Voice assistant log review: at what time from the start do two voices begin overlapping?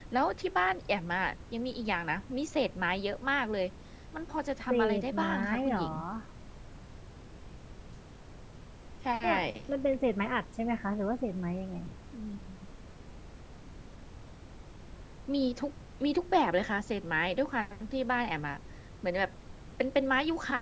4.7 s

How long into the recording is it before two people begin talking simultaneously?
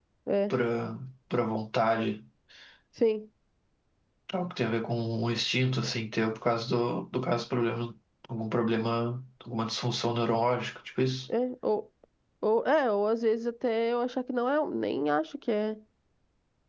none

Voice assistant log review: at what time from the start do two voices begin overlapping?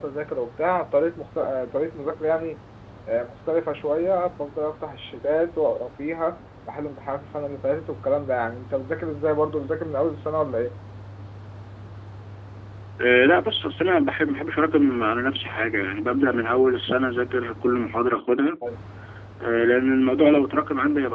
none

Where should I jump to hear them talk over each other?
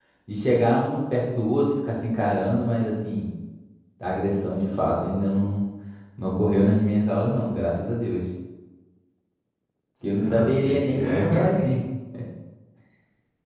10.2 s

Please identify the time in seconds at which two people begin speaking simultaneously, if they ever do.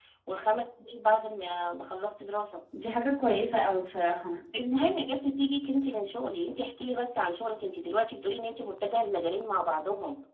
none

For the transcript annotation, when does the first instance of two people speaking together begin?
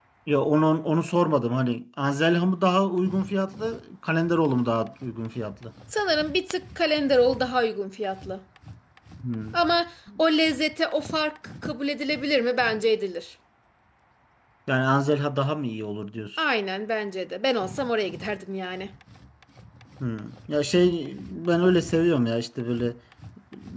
none

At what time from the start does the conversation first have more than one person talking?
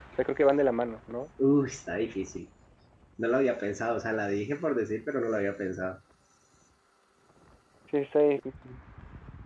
none

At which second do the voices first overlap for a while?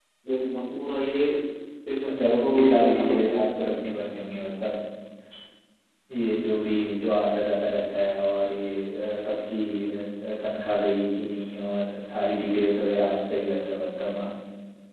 2.1 s

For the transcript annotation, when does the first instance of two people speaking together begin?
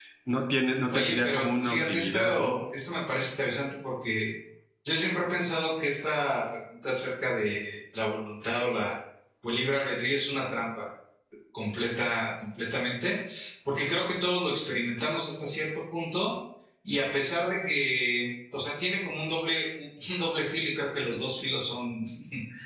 0.9 s

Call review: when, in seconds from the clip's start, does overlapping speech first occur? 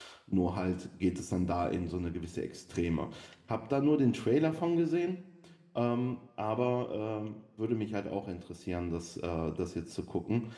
none

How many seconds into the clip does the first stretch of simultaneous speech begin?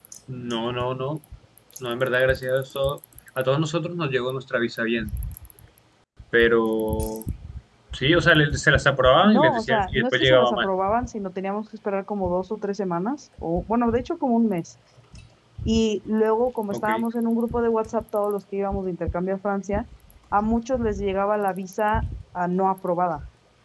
9.2 s

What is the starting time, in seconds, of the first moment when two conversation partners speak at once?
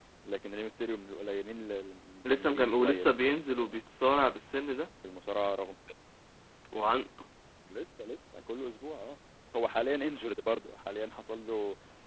2.2 s

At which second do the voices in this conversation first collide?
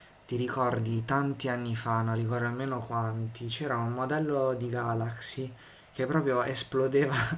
none

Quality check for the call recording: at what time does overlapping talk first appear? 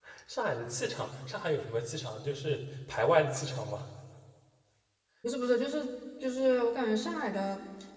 none

